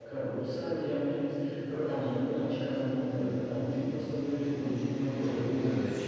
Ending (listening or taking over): taking over